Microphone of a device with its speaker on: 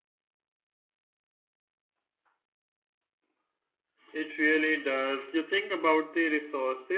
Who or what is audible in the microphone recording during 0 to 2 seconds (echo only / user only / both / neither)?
neither